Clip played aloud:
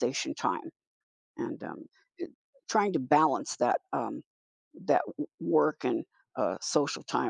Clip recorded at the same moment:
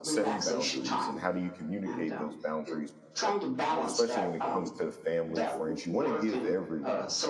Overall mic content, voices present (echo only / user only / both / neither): both